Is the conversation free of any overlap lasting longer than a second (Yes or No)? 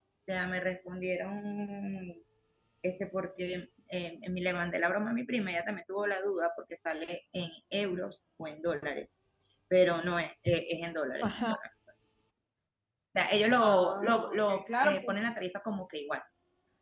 No